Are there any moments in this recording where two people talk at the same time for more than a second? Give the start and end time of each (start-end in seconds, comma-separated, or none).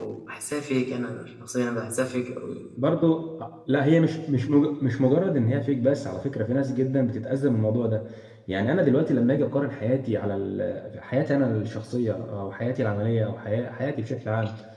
none